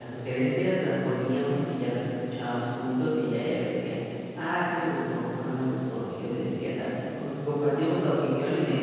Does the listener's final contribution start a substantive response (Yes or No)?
Yes